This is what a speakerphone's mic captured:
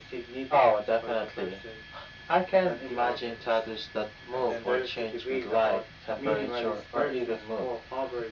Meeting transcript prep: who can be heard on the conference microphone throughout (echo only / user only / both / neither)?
echo only